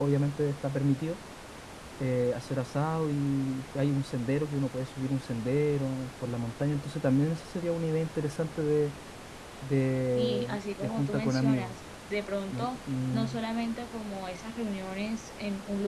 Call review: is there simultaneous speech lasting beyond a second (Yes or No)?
Yes